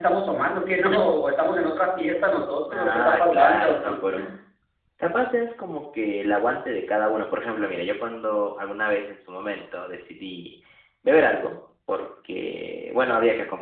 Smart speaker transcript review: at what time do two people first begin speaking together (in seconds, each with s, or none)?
2.7 s